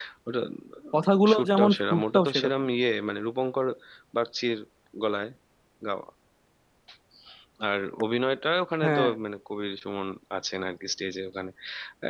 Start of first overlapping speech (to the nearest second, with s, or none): 1 s